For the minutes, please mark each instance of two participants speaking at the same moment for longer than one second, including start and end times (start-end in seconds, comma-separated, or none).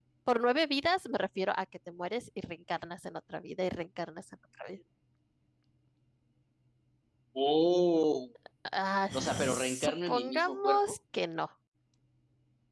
9.1-10.9